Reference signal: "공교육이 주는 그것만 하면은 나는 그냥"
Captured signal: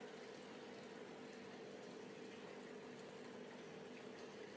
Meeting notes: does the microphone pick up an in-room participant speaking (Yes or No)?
No